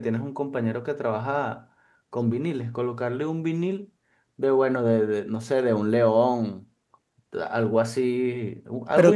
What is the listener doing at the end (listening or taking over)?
taking over